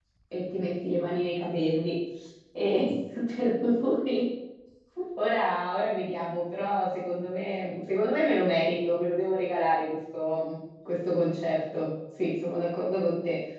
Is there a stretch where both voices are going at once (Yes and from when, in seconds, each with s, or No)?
No